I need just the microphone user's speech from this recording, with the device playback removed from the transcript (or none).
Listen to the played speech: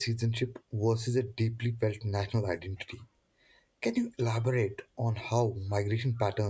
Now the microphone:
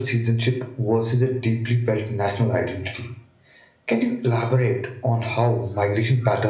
none